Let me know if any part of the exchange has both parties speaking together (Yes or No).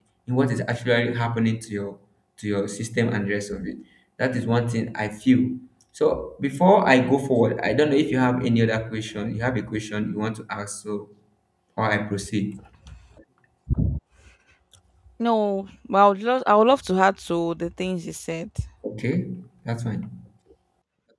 No